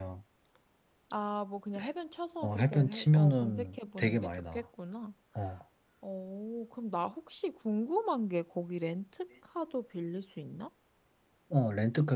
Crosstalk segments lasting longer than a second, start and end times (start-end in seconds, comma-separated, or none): 2.4-4.6